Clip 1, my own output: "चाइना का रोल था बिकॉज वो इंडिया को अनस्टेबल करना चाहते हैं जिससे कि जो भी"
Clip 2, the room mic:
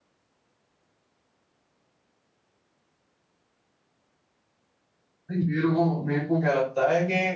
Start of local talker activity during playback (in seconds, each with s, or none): 5.3 s